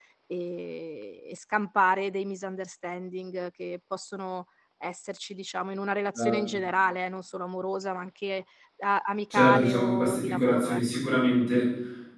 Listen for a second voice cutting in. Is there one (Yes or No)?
Yes